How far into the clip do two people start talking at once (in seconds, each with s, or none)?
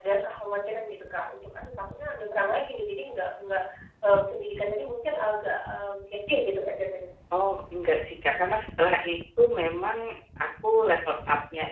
none